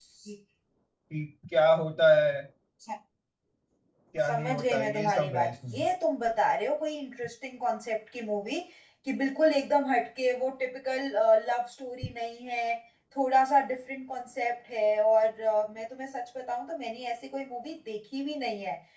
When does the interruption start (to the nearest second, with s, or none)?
4 s